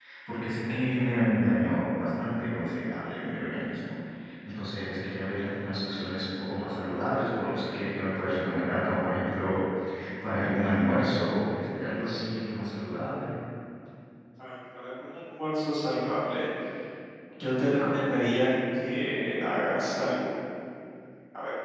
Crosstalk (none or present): none